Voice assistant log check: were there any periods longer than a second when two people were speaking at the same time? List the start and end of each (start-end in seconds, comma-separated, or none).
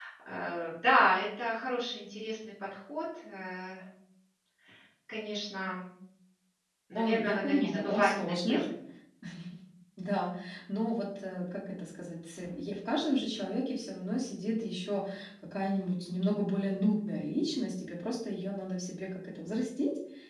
7.0-8.6